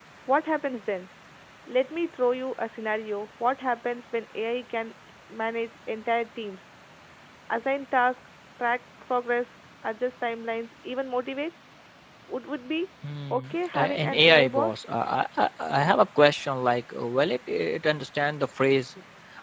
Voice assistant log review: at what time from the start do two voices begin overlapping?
13.3 s

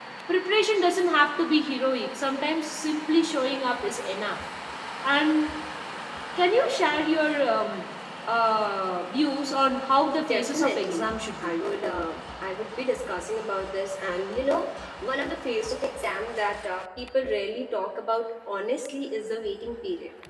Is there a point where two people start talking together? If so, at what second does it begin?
10.2 s

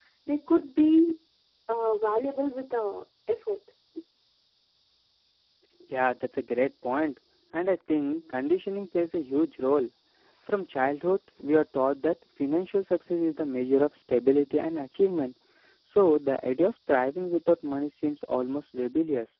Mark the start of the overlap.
none

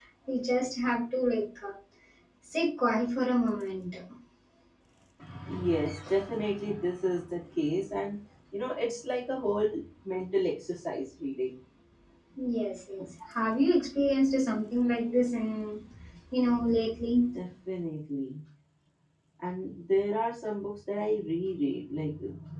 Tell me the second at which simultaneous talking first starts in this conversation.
none

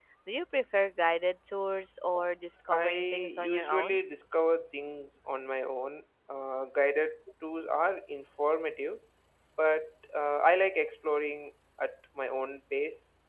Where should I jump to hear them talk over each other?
2.7 s

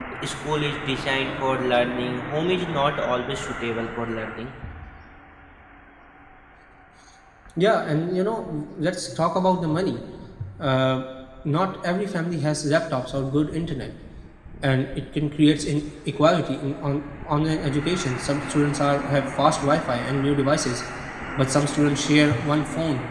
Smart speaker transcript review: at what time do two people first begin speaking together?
none

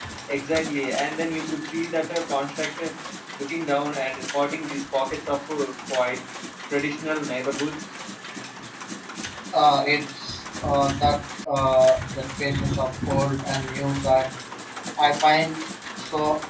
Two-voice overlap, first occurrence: none

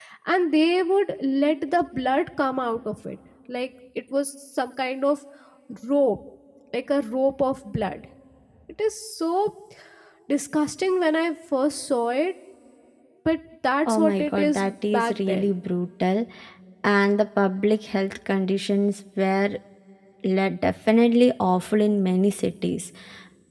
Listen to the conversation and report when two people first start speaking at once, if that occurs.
13.9 s

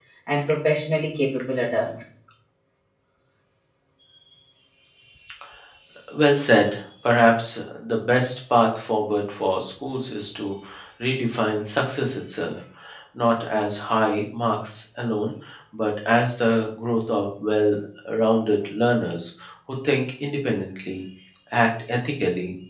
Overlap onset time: none

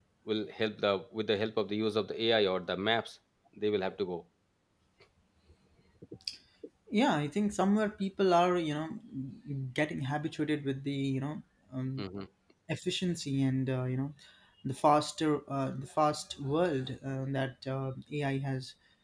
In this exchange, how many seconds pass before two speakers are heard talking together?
none

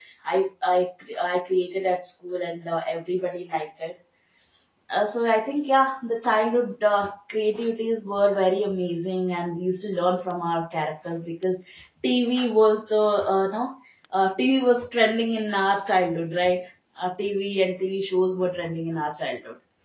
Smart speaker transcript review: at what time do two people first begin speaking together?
none

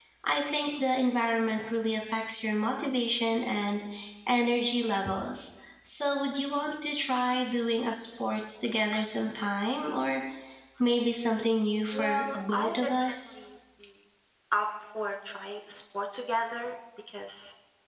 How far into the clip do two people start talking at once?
11.9 s

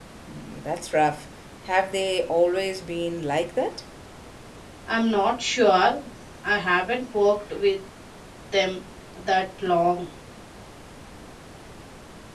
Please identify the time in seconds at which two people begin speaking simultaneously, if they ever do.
none

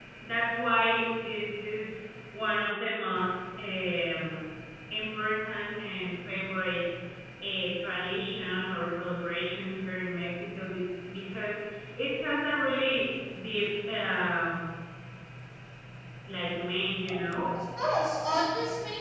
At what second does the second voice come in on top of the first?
none

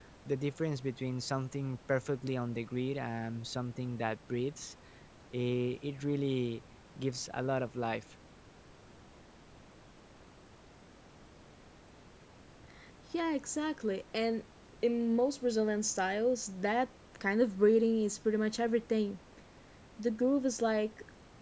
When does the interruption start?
none

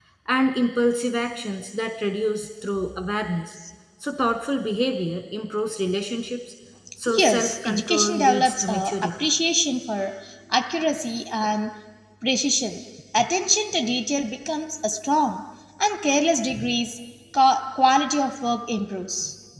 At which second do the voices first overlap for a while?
7.2 s

